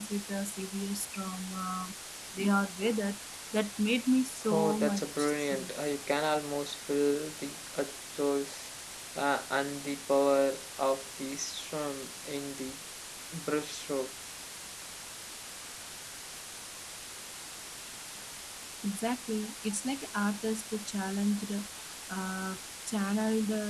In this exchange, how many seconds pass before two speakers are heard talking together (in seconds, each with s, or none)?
4.4 s